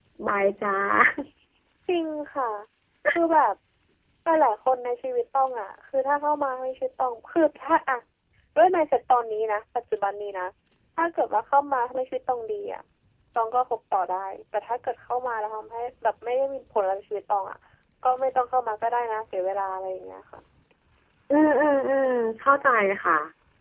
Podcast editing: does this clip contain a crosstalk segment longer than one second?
No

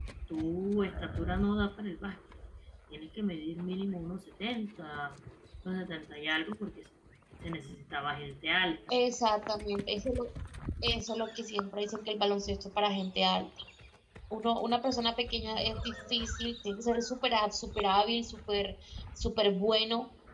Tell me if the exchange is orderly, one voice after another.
Yes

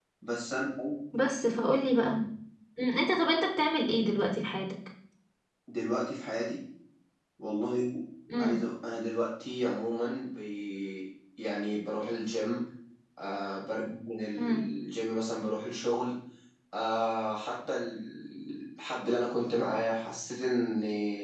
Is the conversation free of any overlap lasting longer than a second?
Yes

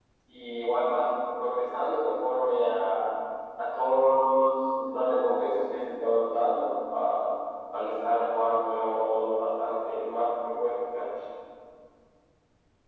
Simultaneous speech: No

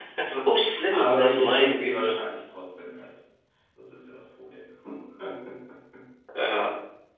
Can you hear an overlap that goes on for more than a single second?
Yes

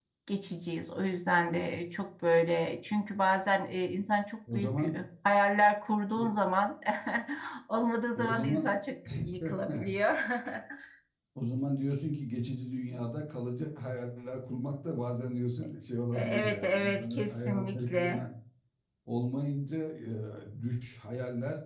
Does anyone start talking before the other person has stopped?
Yes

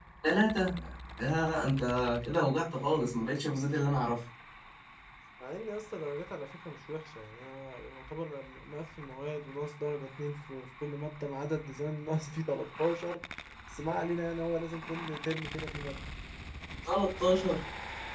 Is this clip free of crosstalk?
Yes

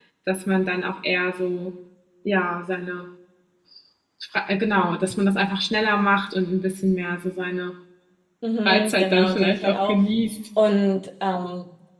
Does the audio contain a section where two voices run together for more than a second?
Yes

